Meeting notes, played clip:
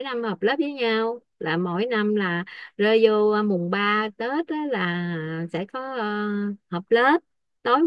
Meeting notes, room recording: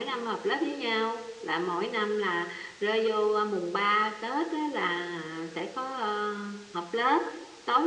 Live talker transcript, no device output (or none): none